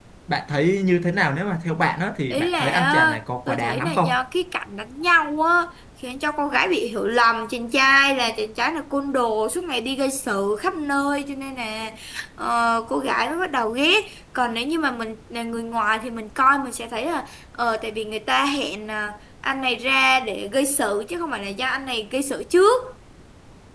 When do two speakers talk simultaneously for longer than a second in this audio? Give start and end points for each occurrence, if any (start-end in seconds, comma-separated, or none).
2.3-4.1